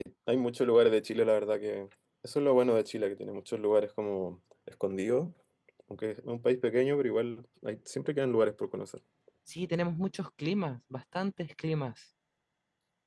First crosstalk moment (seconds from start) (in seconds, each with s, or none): none